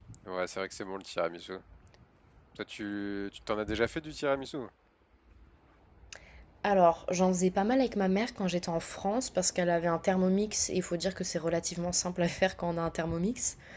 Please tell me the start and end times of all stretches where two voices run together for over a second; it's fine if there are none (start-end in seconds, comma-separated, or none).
none